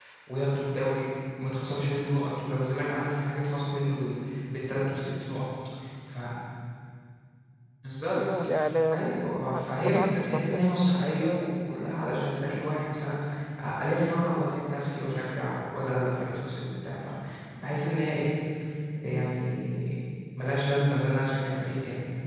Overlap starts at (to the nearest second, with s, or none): 8 s